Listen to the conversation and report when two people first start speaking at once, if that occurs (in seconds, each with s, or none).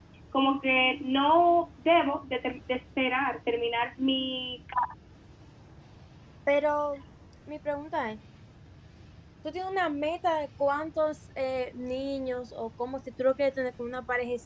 none